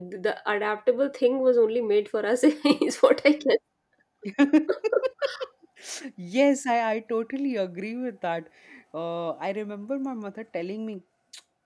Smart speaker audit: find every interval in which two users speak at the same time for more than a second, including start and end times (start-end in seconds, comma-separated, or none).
none